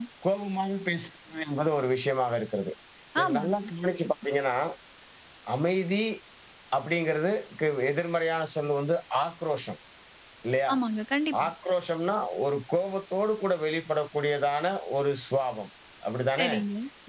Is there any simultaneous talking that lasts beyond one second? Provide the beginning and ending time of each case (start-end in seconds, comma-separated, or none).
none